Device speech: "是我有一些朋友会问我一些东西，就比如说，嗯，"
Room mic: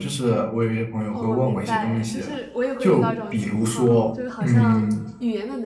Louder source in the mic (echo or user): echo